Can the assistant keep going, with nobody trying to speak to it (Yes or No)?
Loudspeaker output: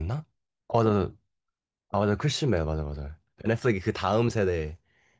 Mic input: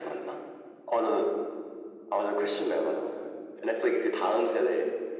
Yes